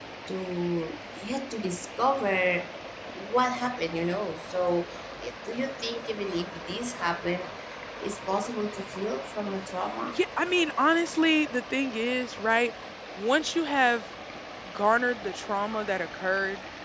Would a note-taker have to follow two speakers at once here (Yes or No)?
No